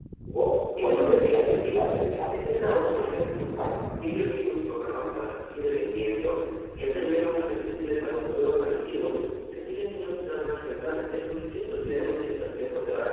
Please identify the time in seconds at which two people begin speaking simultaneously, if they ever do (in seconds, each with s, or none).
0.8 s